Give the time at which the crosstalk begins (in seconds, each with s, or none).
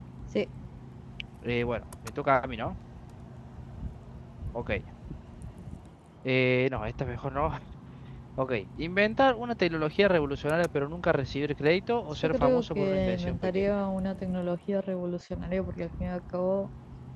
12.2 s